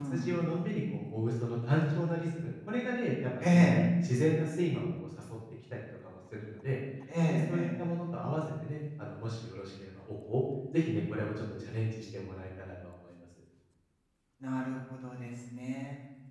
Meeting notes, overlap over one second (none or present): none